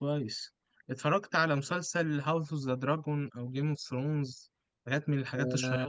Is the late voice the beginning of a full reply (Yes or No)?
Yes